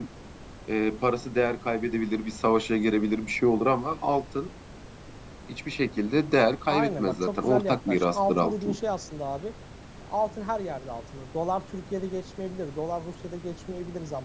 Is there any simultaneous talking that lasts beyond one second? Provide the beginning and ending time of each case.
6.7-8.8

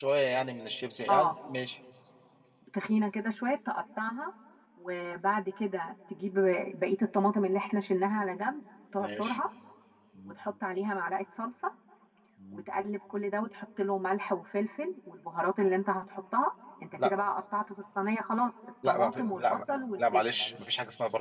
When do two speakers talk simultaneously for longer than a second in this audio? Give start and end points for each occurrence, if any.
18.9-20.2

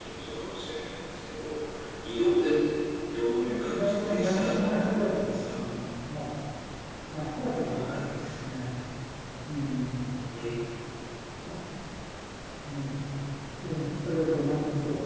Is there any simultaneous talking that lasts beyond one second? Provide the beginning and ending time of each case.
3.7-5.6

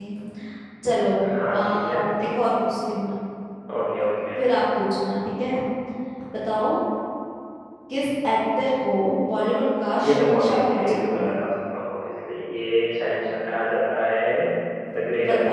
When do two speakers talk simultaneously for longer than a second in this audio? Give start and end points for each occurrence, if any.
10.0-11.3

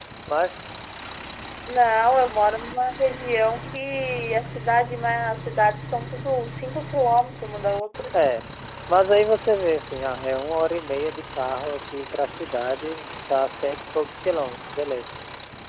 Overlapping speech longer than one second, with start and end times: none

